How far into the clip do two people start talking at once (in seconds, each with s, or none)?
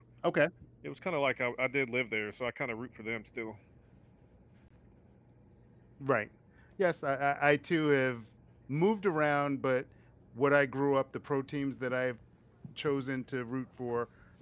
none